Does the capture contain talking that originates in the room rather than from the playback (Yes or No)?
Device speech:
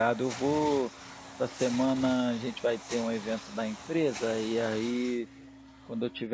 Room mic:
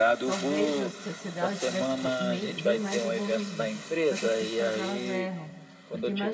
Yes